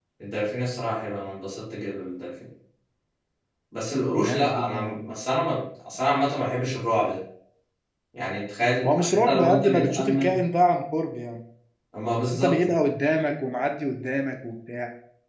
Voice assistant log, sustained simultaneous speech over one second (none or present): present